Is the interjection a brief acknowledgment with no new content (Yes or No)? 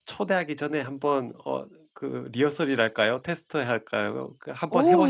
No